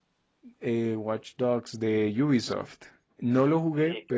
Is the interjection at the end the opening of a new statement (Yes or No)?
No